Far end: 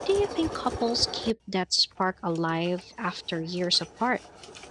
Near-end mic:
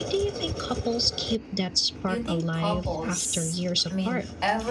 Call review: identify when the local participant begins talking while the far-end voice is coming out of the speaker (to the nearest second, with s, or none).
2 s